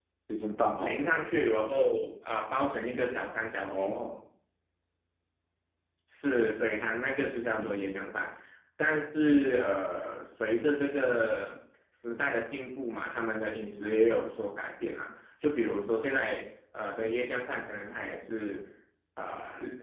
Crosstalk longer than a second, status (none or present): none